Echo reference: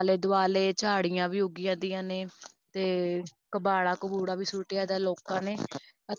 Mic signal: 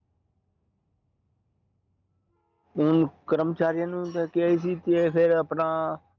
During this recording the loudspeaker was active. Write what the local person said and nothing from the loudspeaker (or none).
ਹੁਣ, ਕਰਮਚਾਰੀਆਂ ਨੂੰ ਲੈਕੇ ਆਈ ਸੀ। ਤੇ ਫੇਰ ਆਪਣਾ